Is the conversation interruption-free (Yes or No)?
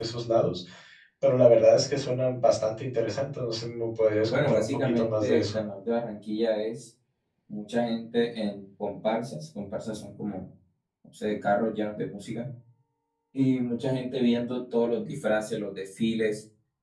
No